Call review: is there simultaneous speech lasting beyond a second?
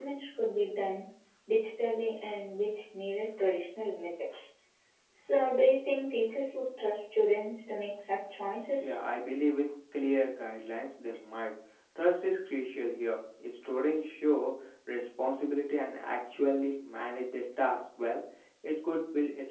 No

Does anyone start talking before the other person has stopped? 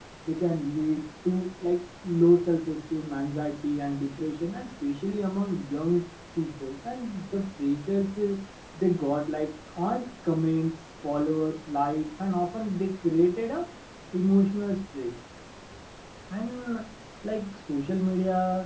No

